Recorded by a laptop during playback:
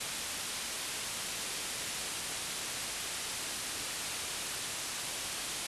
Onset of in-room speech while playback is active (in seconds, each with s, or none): none